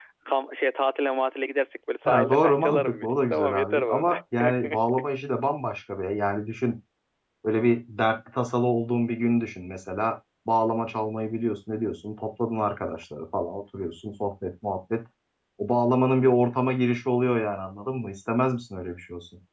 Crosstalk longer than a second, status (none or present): present